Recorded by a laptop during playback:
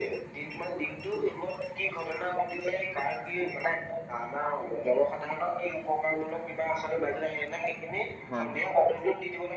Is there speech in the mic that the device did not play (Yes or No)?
Yes